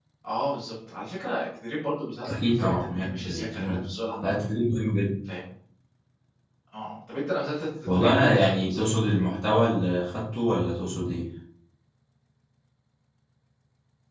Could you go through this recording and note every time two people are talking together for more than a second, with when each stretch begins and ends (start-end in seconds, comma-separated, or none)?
2.3-3.8, 7.8-9.3